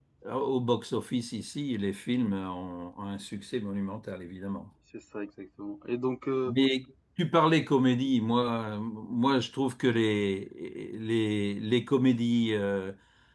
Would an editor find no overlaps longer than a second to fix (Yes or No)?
Yes